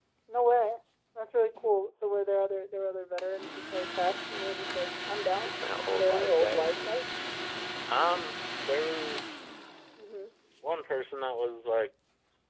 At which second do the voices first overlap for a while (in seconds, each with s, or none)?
5.5 s